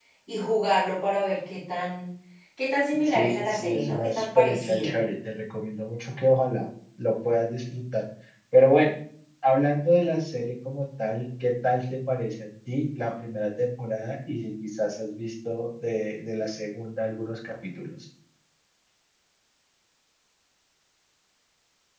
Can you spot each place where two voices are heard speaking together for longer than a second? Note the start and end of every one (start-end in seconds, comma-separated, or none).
3.1-5.0